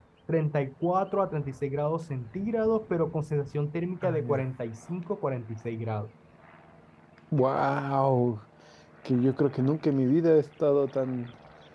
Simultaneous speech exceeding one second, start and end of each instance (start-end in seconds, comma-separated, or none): none